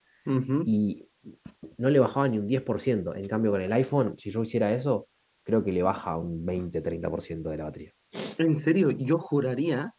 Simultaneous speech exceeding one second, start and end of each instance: none

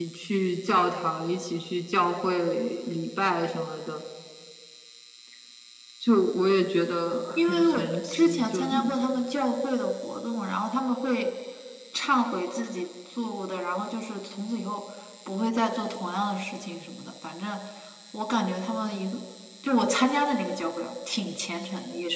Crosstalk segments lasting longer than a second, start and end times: 7.4-8.9

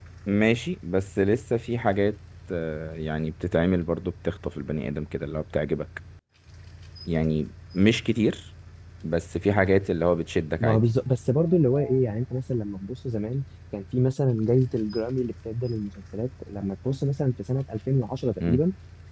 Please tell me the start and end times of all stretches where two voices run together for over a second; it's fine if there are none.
none

